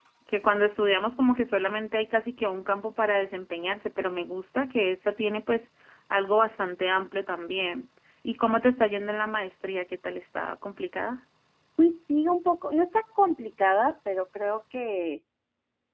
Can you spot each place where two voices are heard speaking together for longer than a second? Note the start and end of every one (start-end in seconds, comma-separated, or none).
none